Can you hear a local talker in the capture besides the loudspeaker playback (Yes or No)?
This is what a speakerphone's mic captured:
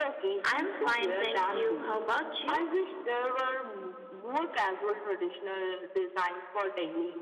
Yes